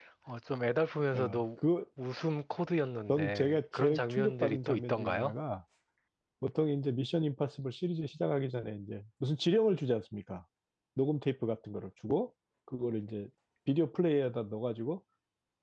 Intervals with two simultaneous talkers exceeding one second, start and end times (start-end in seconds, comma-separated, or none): 3.1-5.3